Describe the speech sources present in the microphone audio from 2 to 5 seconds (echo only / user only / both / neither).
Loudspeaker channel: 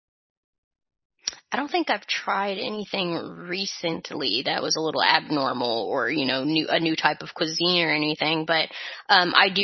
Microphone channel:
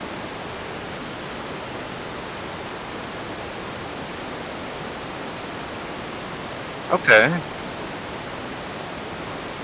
neither